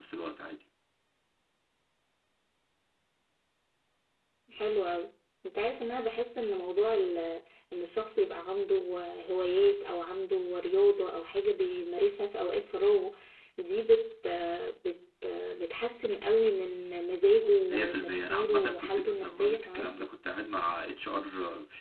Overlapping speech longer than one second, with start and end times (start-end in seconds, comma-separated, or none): 17.6-20.0